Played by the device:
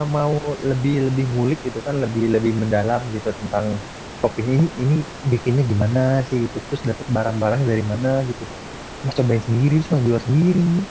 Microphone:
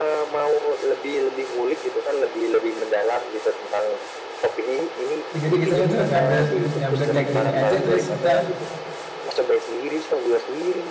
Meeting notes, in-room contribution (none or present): present